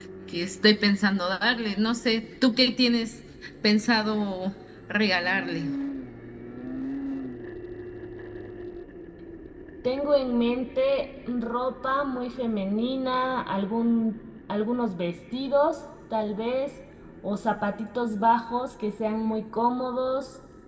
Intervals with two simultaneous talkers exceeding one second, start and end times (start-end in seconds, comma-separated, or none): none